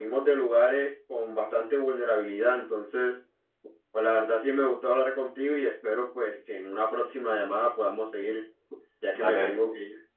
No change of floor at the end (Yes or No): No